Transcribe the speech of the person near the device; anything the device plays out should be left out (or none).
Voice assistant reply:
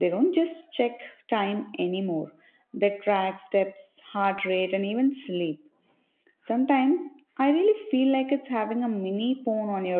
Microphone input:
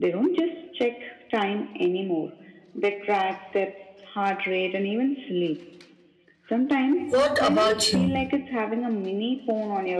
What about you?